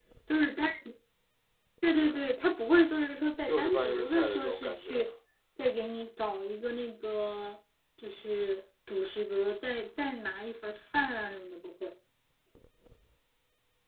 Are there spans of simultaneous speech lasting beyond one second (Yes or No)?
Yes